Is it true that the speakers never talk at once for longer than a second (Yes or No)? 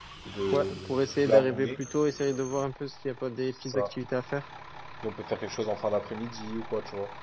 No